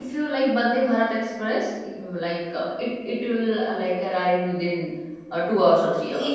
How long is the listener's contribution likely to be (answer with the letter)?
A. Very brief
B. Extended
B